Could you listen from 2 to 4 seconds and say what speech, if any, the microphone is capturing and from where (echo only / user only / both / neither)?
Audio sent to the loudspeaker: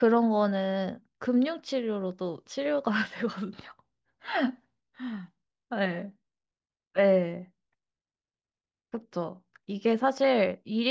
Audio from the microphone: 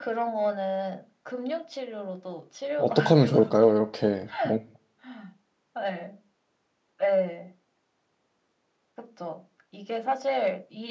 both